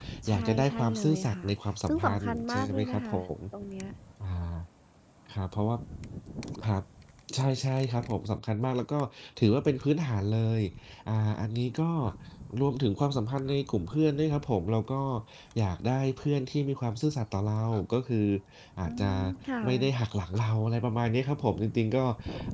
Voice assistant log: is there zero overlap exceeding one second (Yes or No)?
No